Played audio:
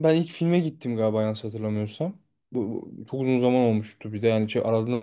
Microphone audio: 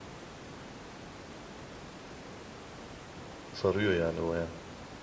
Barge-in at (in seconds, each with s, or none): 3.5 s